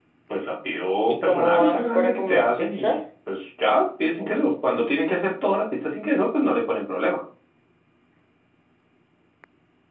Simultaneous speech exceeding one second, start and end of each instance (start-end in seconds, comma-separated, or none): 1.1-3.0